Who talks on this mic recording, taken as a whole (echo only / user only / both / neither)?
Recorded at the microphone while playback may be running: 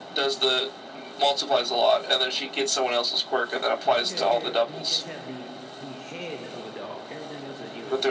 both